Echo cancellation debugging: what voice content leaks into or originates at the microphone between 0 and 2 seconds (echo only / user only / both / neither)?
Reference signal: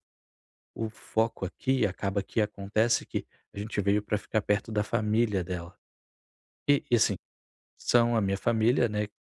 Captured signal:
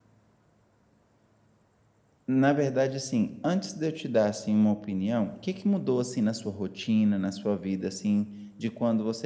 neither